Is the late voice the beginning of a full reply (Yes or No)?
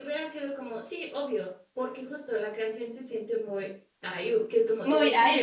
No